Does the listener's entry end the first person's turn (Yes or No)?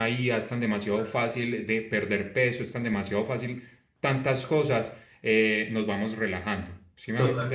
Yes